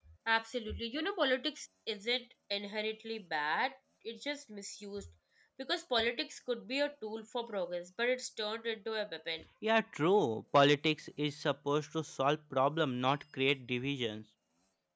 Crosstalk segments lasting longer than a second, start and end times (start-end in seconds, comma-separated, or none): none